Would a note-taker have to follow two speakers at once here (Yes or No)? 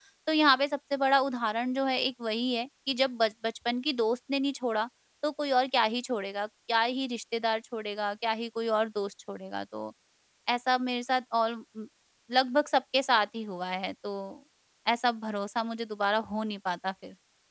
No